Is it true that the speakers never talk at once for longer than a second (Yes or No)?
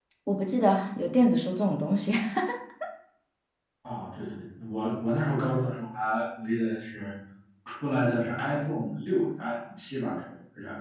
Yes